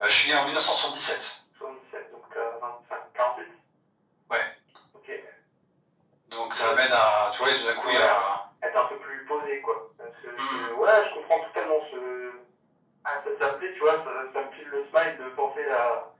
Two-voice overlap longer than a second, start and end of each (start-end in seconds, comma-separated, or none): none